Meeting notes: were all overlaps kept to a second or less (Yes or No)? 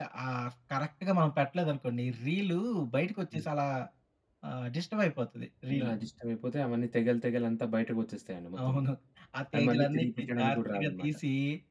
No